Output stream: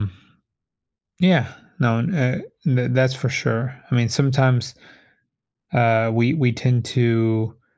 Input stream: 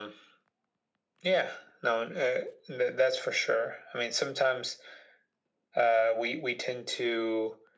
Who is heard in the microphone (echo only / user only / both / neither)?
echo only